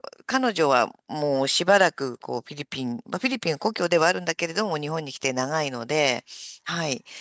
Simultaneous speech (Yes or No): No